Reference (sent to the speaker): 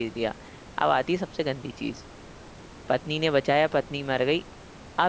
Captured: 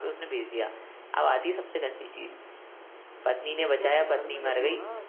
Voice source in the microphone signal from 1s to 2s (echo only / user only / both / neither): echo only